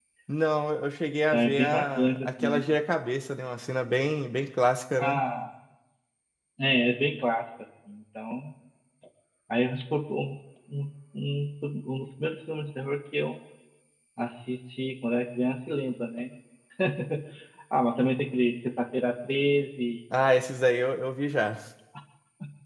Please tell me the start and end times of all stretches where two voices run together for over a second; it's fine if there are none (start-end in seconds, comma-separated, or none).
1.3-2.6